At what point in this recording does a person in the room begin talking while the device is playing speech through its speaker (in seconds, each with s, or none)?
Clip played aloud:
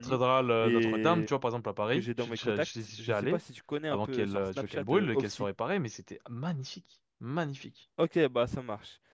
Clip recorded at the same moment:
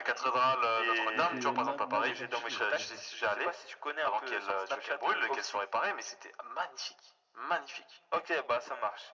1.1 s